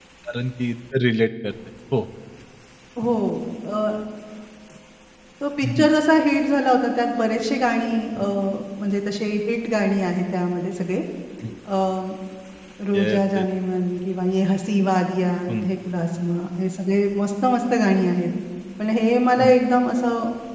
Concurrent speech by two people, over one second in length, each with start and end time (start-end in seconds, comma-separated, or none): none